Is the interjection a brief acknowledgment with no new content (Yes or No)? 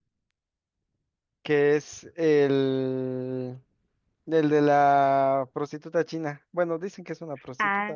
No